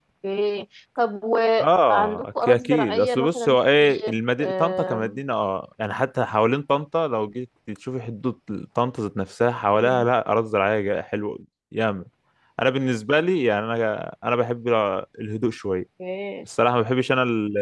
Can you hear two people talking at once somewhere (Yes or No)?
Yes